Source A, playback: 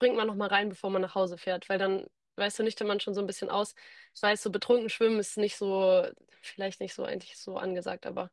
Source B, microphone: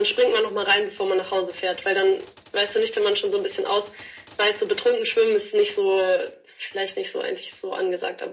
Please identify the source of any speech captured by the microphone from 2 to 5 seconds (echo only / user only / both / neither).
echo only